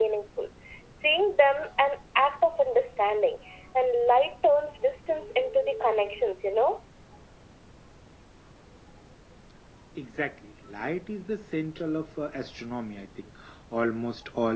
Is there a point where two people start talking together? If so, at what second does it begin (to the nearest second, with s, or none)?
none